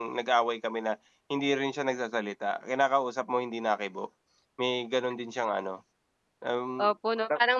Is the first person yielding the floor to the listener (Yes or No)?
Yes